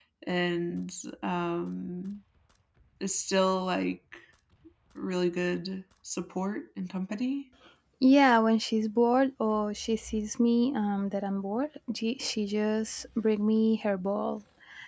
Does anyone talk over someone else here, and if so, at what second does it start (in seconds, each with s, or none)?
none